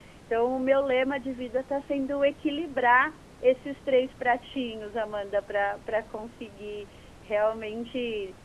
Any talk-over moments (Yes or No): No